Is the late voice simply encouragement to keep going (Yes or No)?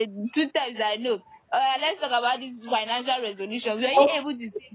Yes